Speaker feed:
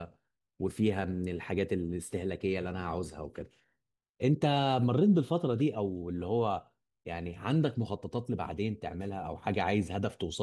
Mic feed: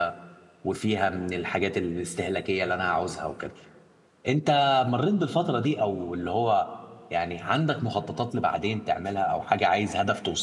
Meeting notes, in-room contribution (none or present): none